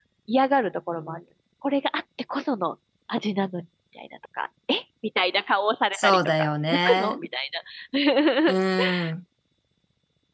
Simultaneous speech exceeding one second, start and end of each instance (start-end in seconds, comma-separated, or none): 5.9-7.2